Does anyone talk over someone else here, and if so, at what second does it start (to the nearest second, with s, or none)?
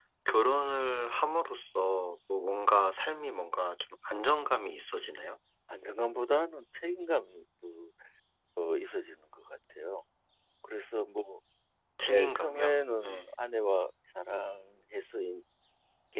12 s